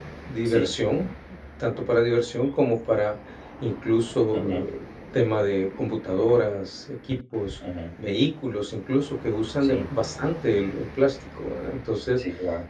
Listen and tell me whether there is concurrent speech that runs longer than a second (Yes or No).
No